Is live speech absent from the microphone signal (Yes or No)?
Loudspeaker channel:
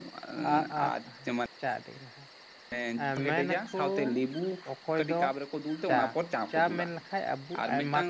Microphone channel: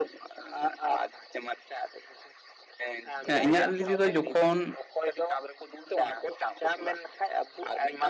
No